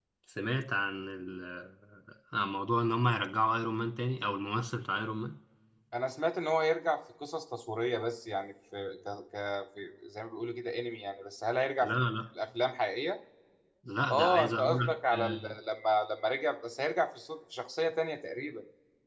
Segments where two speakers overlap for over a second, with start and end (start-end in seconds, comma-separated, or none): 14.1-15.5